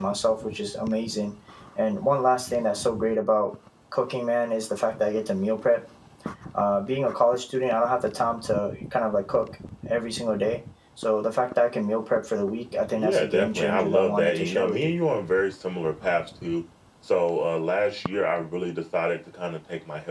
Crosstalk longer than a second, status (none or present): present